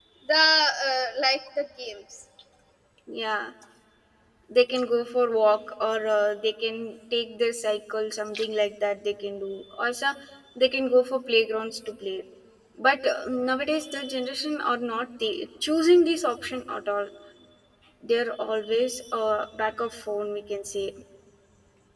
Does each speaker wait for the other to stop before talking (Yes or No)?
Yes